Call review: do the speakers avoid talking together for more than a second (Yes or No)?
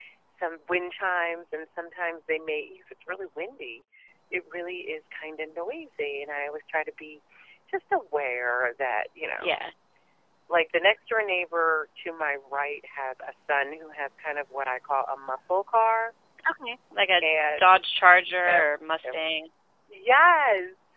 Yes